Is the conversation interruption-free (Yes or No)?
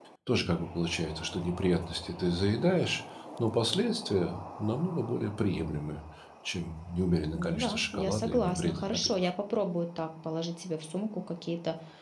No